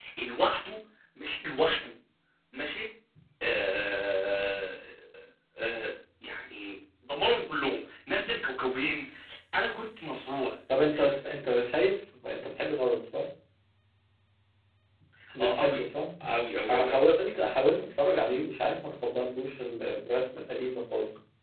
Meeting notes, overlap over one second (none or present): none